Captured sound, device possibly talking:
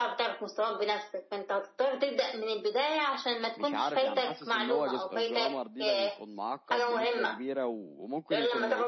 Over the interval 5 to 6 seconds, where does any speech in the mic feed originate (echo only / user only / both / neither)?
both